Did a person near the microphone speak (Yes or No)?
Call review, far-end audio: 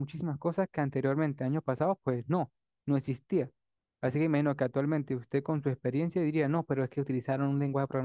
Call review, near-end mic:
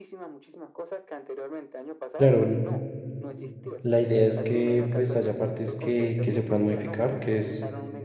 Yes